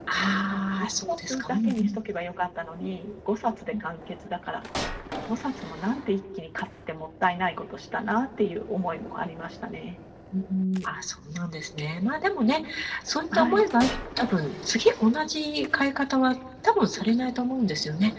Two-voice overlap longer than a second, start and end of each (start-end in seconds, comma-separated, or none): 0.5-2.0